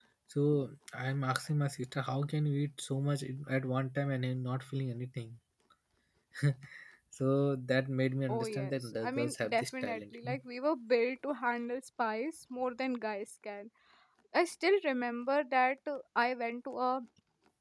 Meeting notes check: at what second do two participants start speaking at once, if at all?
8.3 s

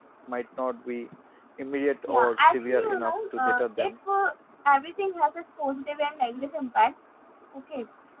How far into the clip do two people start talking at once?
2.1 s

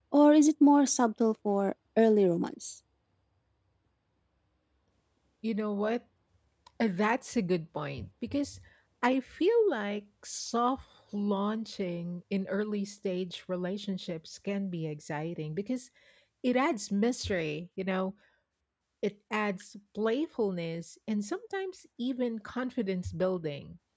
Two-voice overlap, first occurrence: none

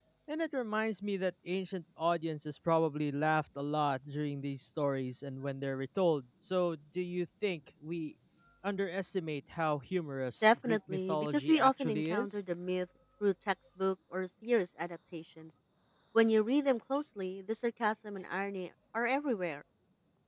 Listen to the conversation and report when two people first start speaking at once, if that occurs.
10.4 s

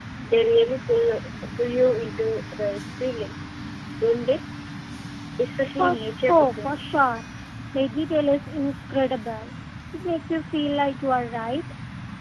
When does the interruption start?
5.7 s

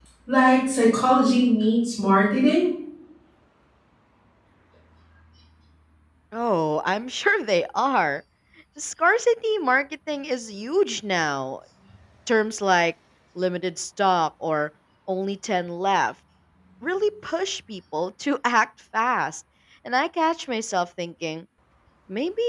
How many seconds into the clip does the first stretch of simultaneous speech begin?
none

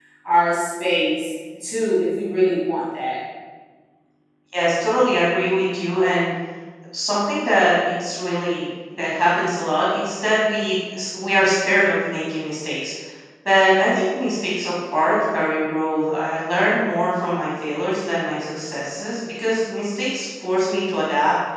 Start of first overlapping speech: none

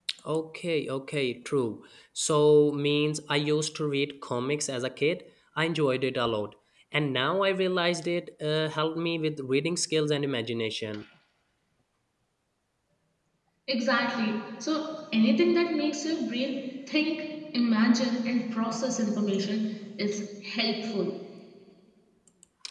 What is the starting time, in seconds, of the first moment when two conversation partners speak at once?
none

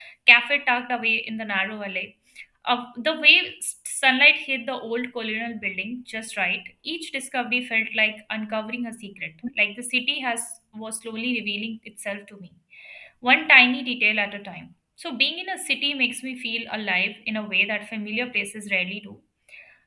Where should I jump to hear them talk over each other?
none

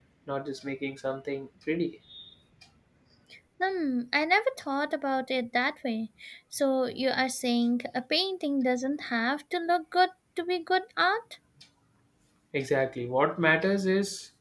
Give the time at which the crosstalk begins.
none

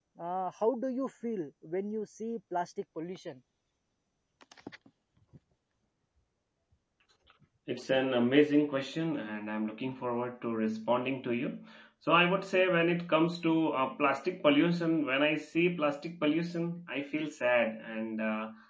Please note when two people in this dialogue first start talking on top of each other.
none

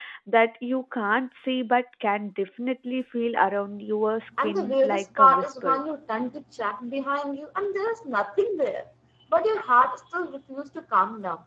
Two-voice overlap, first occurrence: 4.4 s

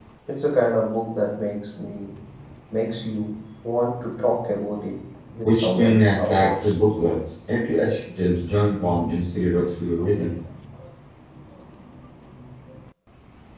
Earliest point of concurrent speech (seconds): 5.4 s

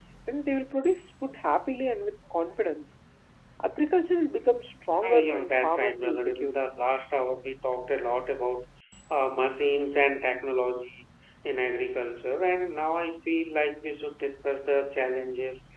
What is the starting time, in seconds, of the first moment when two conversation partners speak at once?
5.0 s

